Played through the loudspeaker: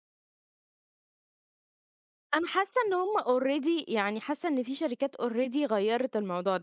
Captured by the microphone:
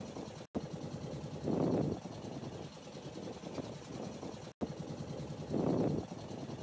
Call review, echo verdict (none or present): none